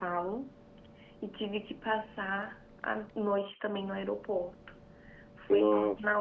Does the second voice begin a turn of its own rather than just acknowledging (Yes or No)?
No